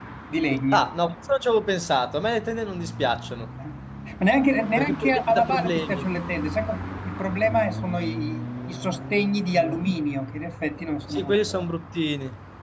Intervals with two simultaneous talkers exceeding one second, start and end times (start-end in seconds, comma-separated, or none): 4.8-6.1